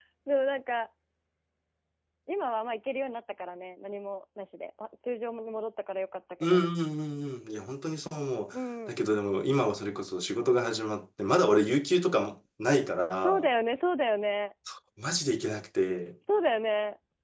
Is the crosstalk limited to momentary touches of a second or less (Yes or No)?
Yes